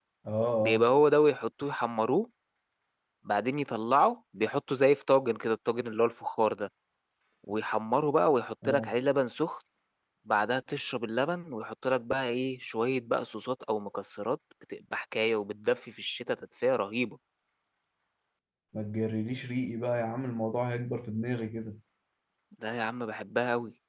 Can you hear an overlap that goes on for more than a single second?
No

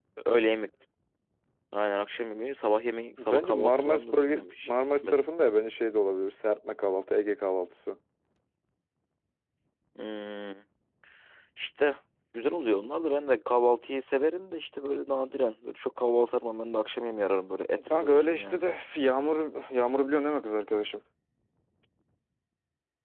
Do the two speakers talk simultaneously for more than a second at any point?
Yes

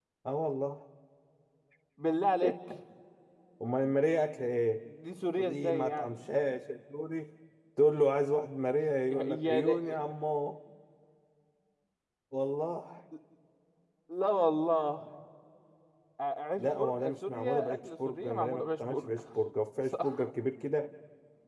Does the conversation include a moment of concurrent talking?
Yes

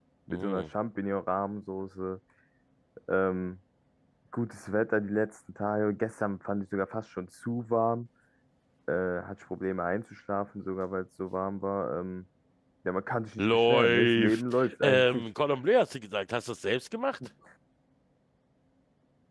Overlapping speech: Yes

